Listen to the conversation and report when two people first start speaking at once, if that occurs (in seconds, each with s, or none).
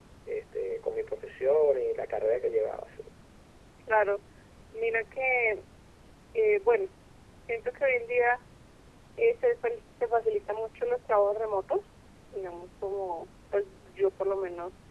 none